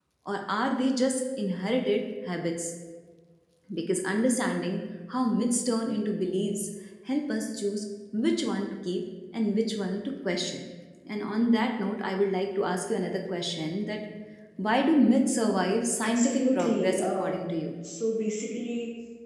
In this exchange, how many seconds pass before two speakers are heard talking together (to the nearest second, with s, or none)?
16 s